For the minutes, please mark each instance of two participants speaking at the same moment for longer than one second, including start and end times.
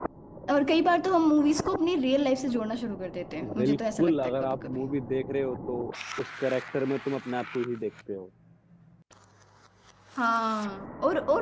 3.6-4.8

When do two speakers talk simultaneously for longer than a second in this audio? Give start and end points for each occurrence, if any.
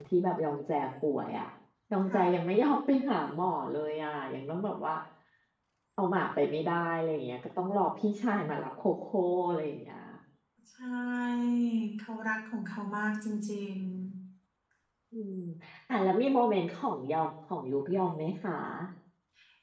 none

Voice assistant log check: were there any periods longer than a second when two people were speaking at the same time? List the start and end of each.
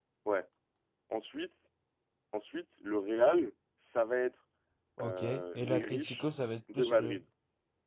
5.0-6.2

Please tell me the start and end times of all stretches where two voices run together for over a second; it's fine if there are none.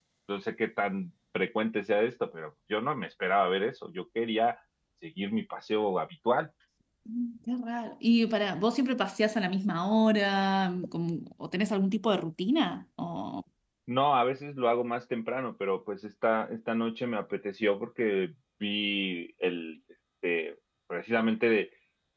none

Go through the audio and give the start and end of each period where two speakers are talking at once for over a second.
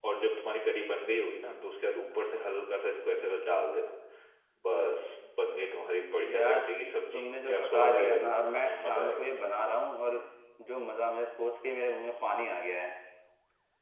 7.1-9.2

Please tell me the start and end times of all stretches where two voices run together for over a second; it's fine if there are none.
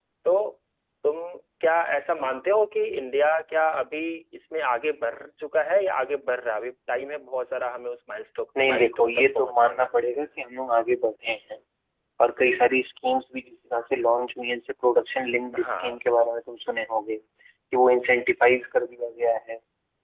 8.6-9.9

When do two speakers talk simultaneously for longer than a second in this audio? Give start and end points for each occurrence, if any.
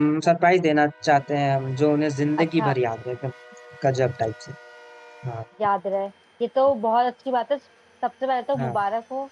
none

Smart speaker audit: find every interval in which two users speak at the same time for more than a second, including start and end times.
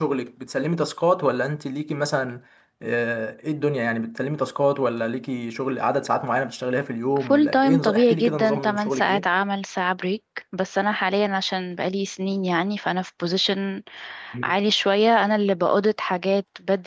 7.2-9.2

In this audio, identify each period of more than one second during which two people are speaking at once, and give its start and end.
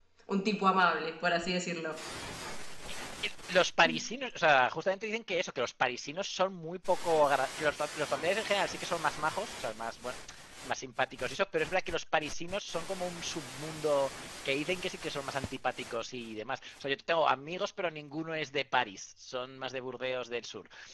none

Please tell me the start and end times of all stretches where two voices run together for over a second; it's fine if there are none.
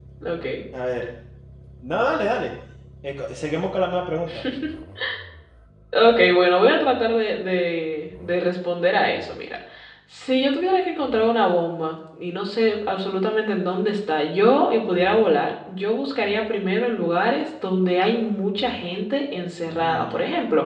none

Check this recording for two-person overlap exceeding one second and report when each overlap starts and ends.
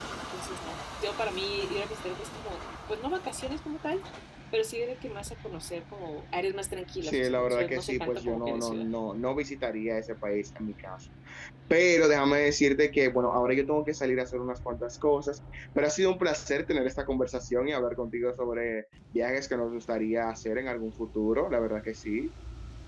7.0-8.8

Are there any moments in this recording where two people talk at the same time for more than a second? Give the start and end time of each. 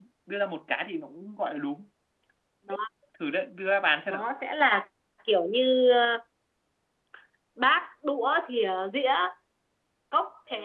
none

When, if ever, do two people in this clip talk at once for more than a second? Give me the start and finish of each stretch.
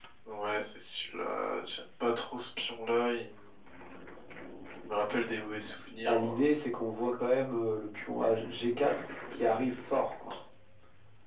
none

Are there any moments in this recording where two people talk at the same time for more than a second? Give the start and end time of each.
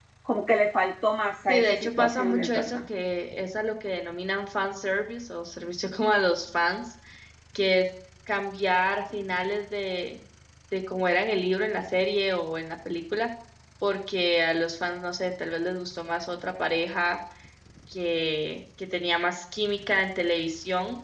1.5-2.8

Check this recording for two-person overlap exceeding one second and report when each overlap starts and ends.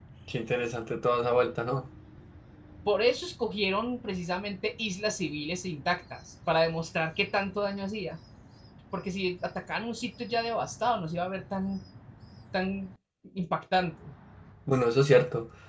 none

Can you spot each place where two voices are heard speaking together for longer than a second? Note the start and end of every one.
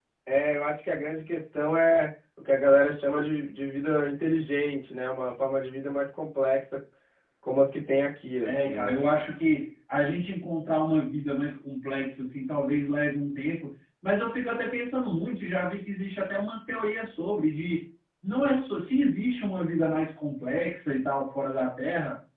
none

